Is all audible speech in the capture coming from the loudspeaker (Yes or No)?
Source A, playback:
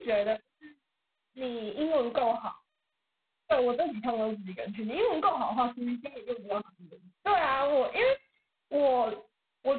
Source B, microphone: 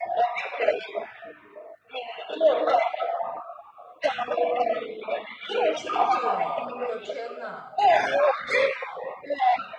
No